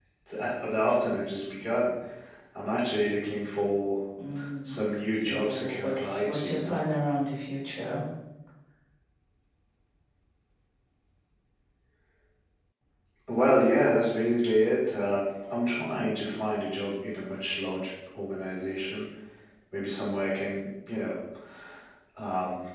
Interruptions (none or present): present